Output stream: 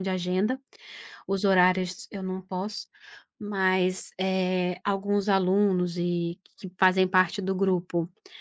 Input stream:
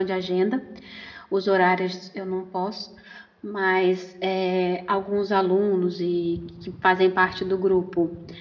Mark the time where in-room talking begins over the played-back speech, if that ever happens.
none

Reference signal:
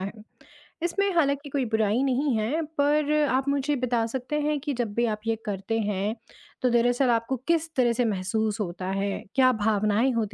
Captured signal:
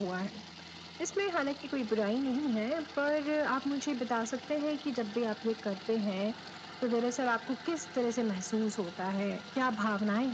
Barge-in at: none

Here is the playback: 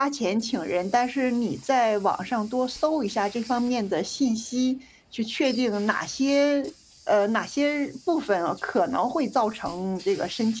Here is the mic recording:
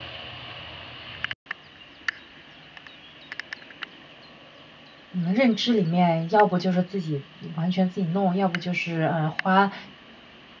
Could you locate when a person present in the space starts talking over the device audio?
5 s

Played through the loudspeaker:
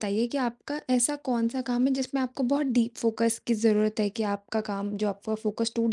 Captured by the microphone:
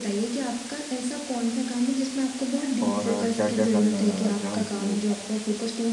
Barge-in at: 3 s

